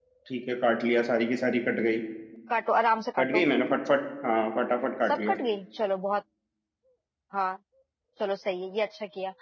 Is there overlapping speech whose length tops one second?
No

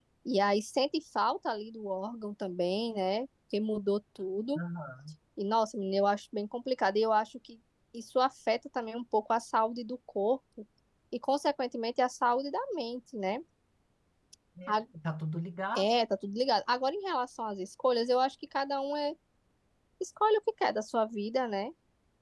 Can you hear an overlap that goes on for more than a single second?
No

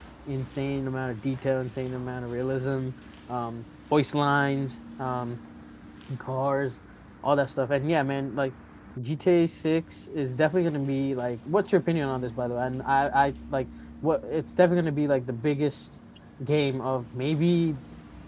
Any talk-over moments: No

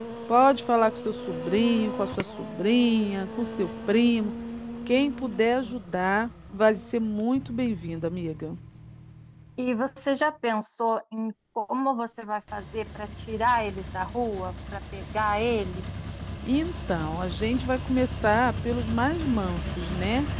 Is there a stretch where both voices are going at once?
No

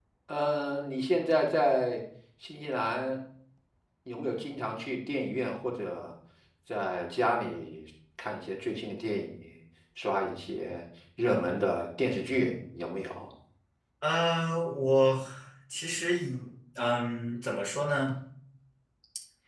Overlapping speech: No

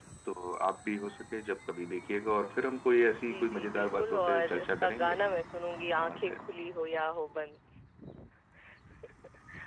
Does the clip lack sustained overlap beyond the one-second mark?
No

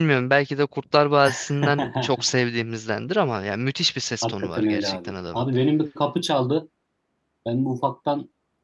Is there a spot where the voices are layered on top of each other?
Yes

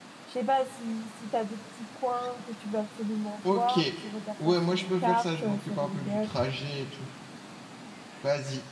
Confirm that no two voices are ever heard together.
No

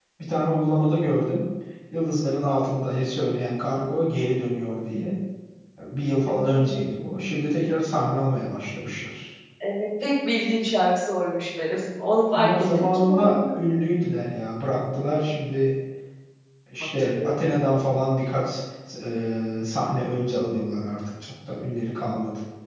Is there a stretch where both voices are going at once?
Yes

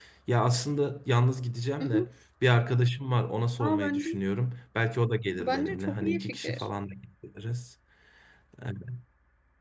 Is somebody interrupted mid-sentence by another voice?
Yes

